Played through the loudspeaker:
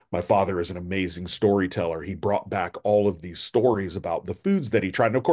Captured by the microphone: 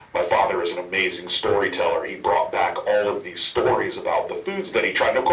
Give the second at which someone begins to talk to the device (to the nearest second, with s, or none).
none